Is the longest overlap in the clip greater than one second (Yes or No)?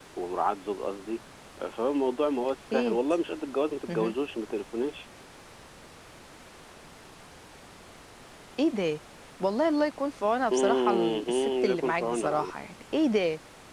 Yes